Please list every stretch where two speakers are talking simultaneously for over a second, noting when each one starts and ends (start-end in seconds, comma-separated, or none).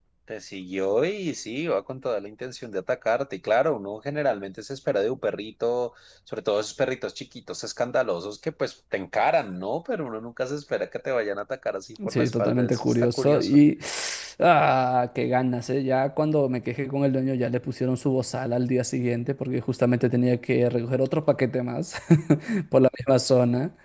12.1-13.6